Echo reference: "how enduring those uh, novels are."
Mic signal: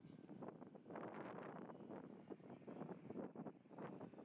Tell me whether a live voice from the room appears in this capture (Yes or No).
No